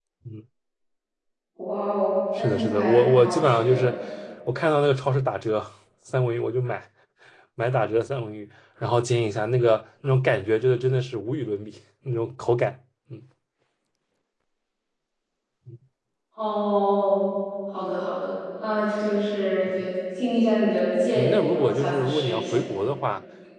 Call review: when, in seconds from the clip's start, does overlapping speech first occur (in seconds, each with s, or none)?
2.4 s